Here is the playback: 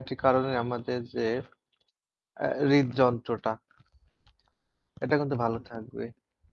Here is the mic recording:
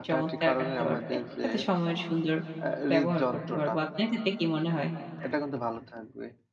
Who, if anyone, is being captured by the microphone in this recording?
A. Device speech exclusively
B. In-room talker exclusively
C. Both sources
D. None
C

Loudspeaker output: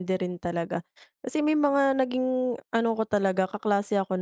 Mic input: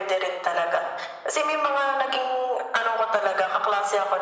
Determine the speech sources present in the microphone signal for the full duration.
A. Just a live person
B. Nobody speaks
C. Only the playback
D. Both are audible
C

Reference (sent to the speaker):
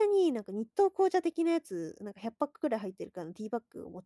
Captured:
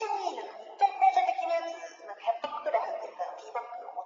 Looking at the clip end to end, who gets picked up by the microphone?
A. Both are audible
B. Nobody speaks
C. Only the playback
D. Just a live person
C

